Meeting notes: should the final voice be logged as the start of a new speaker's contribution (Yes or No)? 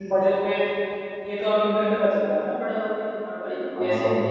Yes